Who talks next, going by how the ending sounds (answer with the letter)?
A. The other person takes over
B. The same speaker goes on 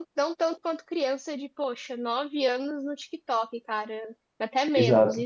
A